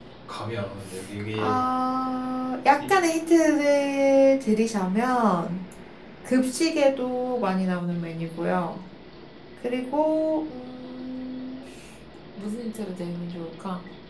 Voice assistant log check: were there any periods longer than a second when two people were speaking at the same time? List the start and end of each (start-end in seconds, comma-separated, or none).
none